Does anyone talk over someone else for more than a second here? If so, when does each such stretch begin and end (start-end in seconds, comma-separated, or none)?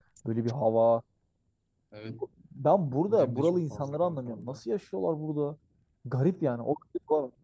3.1-4.6